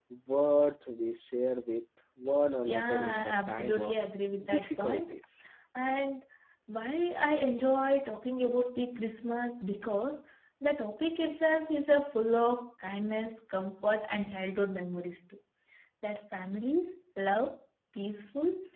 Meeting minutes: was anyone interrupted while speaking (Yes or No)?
Yes